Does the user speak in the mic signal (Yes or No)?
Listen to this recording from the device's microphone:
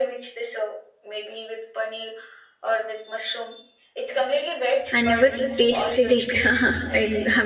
Yes